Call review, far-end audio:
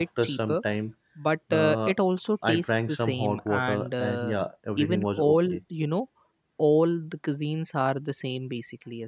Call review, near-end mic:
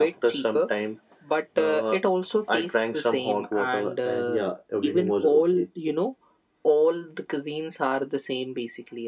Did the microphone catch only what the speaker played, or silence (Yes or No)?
Yes